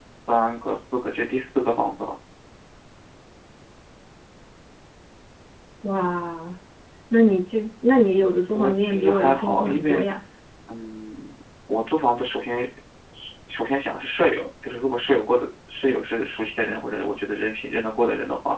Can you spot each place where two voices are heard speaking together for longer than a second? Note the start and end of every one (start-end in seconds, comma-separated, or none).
8.5-10.1